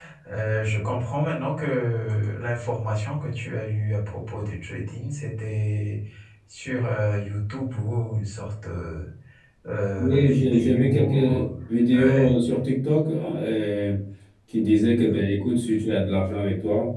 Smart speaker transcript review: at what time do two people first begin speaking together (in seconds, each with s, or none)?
10.2 s